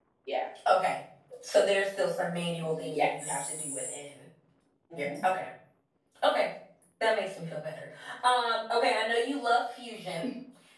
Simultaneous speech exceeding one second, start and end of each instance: 2.7-4.0

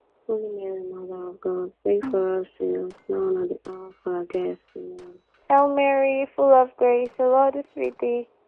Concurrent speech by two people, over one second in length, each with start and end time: none

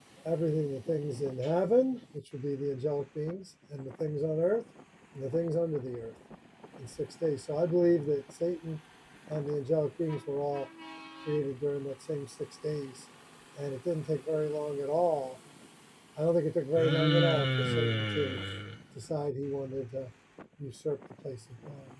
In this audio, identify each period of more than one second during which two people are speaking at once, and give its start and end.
16.8-18.4

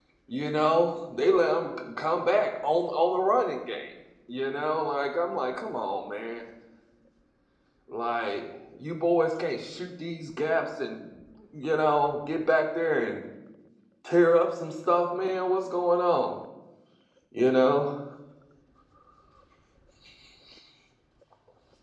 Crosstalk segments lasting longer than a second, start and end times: none

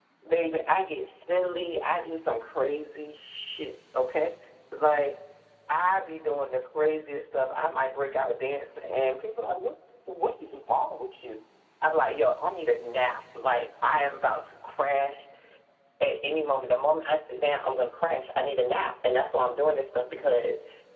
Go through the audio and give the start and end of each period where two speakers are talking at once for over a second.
none

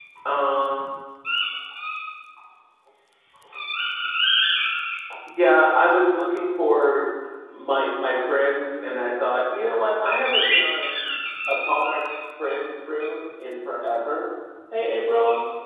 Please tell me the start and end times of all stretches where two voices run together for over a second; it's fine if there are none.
none

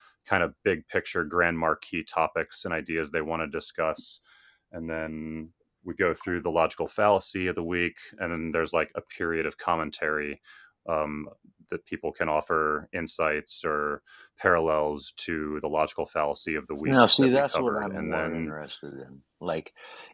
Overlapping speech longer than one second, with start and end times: 16.8-18.5

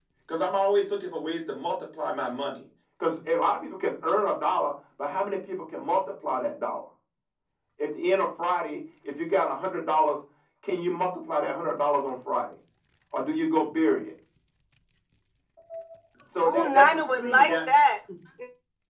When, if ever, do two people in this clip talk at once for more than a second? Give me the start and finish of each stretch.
16.4-17.7

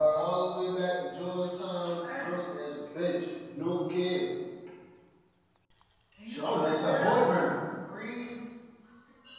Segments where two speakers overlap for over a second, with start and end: 6.3-7.5

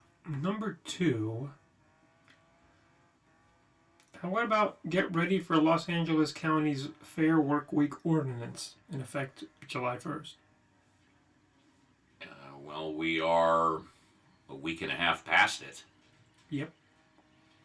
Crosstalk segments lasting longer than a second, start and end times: none

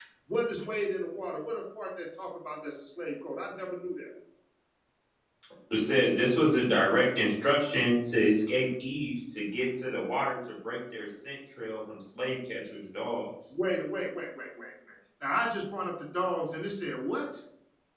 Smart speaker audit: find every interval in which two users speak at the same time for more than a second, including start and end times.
none

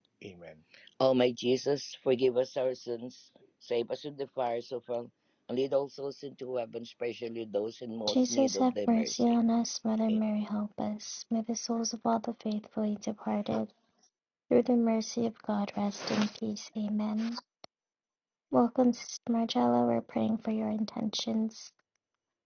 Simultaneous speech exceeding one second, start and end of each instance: 8.1-9.4

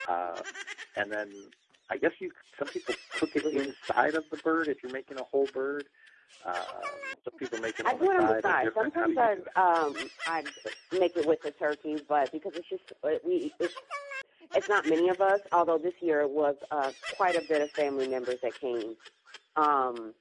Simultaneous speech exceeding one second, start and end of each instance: 7.8-9.5

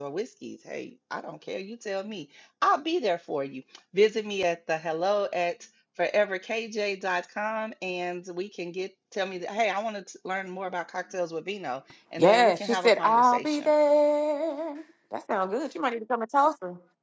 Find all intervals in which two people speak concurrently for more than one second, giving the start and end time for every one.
12.2-13.7

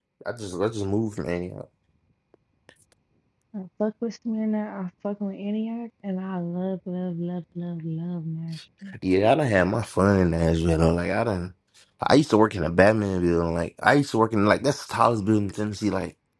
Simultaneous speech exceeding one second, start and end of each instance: none

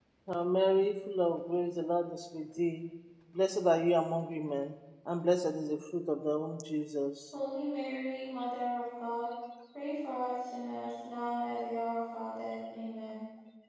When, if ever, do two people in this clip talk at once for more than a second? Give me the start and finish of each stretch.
none

